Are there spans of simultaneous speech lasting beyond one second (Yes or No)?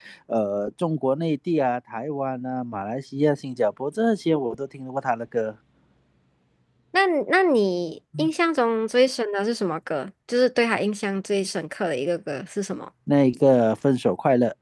No